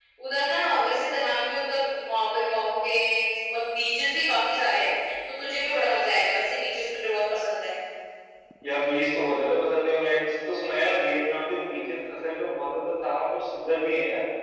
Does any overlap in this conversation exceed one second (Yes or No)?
No